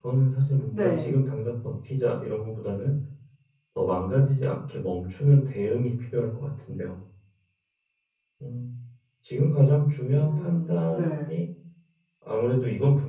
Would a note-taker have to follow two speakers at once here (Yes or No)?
Yes